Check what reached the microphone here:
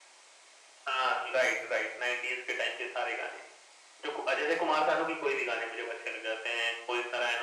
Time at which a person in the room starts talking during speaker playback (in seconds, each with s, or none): none